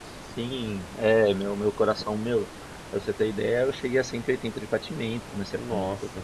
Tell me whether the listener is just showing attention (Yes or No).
Yes